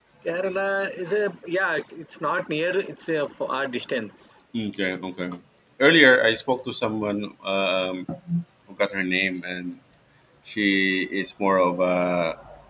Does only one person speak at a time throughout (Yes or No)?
Yes